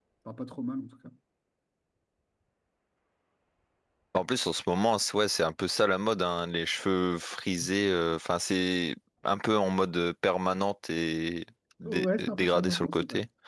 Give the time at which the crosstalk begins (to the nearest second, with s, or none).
12 s